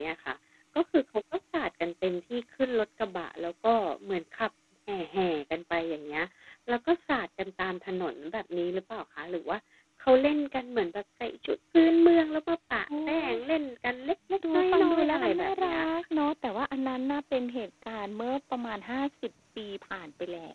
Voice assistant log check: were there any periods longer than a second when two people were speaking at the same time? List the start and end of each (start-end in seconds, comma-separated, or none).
14.5-15.9